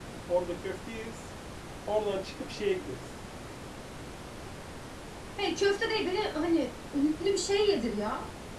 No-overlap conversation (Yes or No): Yes